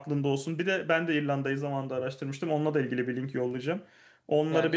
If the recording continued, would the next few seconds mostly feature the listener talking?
Yes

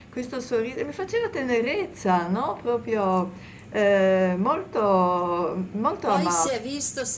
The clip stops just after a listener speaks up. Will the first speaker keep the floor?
No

